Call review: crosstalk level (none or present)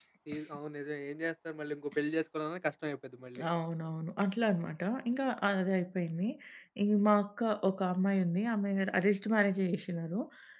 none